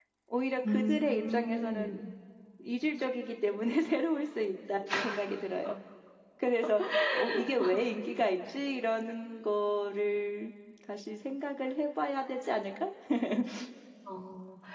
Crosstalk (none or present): present